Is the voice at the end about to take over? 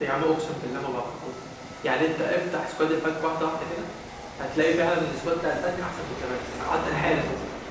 No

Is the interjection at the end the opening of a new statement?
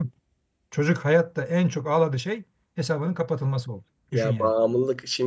Yes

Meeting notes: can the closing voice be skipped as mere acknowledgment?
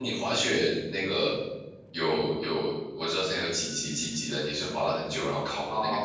No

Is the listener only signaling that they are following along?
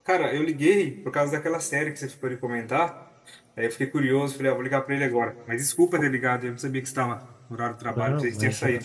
No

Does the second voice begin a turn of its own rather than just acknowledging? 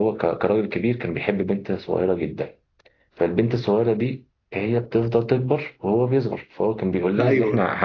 No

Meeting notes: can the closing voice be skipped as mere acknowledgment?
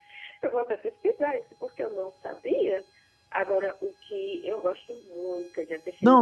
No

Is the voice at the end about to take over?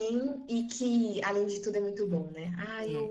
Yes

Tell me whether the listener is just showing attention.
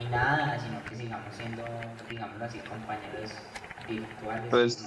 No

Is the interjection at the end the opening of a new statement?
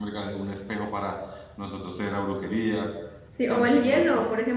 Yes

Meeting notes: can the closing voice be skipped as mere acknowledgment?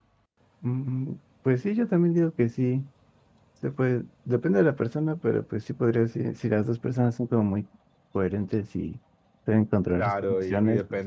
No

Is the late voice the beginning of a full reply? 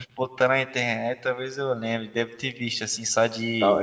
Yes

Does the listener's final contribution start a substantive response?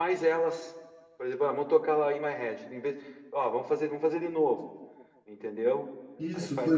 Yes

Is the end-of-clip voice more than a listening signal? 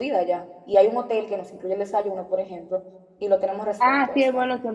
Yes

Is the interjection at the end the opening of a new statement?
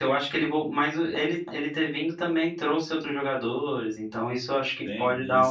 Yes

